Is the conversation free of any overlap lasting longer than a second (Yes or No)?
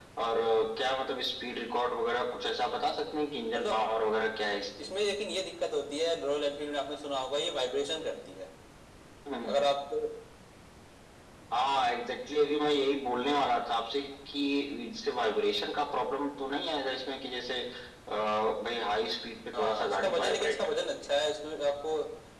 No